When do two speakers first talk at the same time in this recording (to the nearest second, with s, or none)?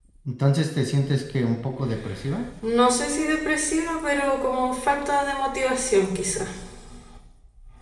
none